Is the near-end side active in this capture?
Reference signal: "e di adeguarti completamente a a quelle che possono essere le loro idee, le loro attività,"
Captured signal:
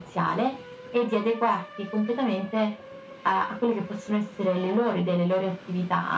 No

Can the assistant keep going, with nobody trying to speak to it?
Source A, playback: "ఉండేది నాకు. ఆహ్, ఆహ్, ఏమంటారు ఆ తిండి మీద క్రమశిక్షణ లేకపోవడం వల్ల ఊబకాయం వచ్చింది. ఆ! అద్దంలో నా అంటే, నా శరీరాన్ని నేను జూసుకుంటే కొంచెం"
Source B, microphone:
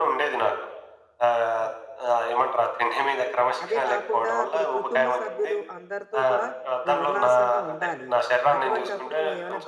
No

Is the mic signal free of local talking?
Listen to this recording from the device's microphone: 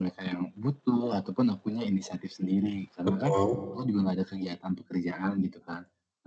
No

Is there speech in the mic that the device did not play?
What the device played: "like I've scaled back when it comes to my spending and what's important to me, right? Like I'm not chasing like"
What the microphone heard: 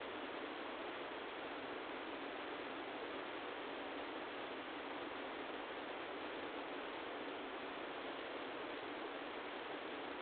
No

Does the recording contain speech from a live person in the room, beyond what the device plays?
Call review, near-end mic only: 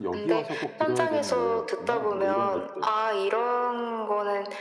Yes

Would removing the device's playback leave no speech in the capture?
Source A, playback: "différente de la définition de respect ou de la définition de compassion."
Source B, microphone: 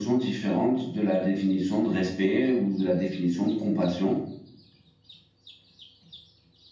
Yes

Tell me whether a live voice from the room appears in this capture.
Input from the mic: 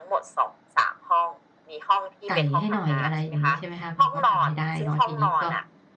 Yes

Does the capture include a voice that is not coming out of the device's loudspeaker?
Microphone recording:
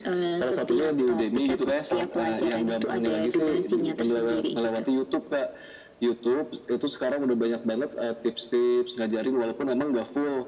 No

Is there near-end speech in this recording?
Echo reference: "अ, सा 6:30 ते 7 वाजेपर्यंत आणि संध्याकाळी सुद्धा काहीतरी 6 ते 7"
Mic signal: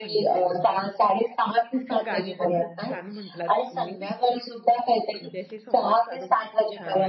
Yes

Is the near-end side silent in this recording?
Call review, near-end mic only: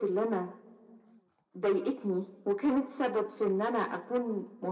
Yes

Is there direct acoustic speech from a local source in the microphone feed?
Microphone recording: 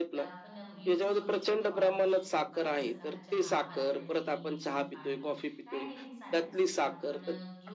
Yes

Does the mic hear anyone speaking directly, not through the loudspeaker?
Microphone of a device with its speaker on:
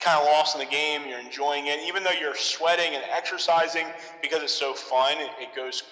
No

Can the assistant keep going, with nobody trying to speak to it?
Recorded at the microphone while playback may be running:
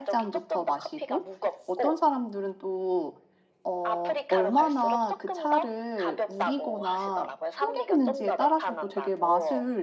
No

